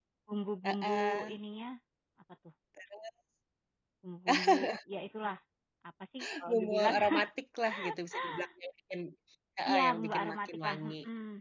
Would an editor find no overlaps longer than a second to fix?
No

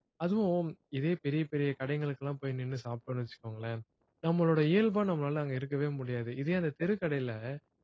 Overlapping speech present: No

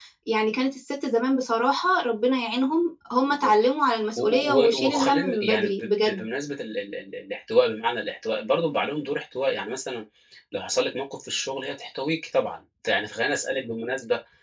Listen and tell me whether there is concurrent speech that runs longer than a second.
Yes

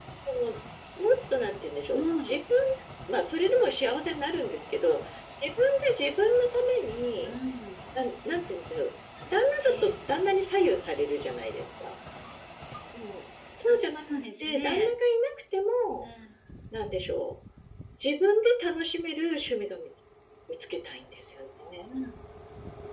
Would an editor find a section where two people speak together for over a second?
No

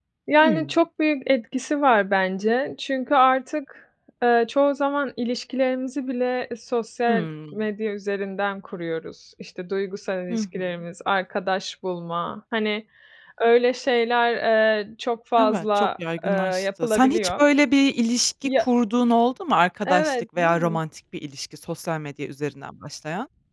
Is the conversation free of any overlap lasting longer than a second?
No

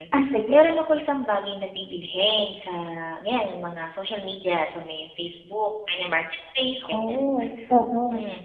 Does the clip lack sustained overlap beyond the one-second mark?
Yes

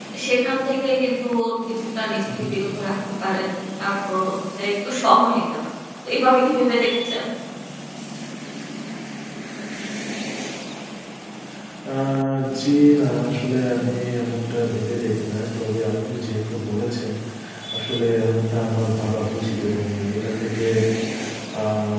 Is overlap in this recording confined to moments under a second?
Yes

